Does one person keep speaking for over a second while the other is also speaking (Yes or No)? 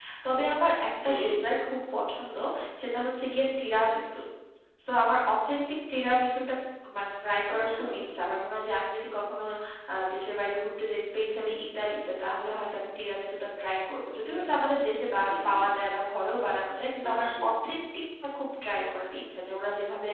No